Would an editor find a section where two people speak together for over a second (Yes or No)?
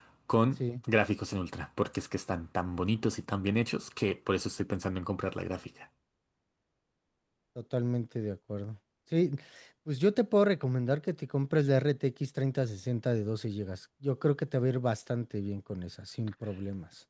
No